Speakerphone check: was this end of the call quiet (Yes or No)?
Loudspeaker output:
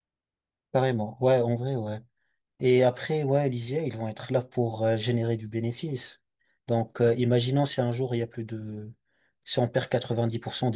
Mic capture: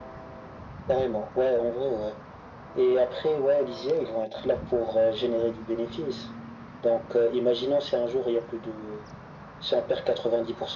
Yes